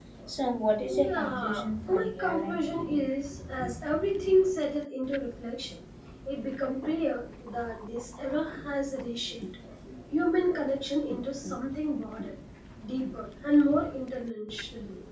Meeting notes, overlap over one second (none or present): present